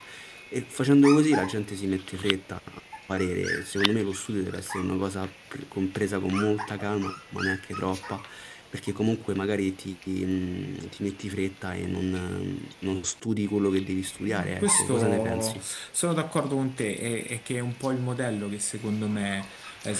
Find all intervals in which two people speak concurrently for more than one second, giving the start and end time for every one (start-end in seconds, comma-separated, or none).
14.3-15.6